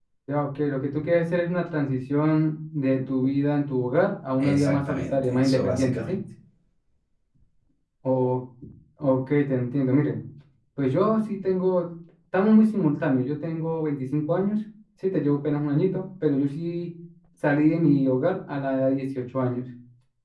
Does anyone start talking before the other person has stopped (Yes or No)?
Yes